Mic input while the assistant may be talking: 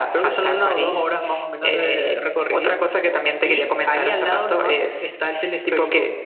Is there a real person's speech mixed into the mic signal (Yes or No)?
No